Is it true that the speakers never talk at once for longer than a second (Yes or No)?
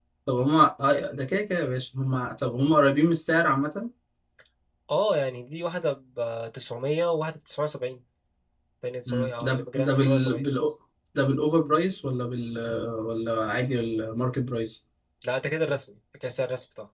No